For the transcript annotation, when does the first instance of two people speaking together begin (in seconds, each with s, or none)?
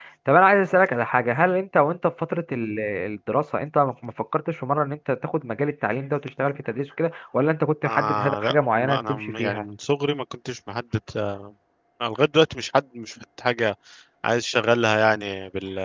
7.8 s